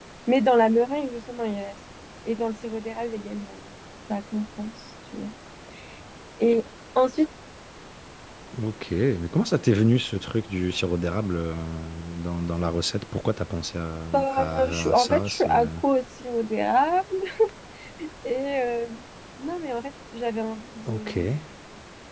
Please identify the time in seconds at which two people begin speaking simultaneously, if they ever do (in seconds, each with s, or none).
14.1 s